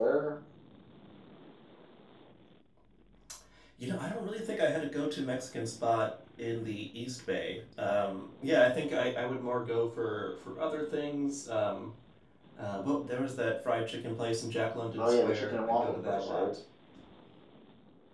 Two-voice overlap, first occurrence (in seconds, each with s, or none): 15.0 s